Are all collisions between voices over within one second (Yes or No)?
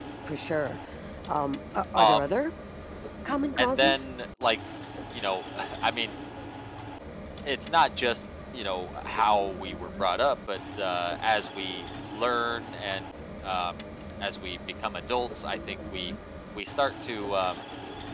Yes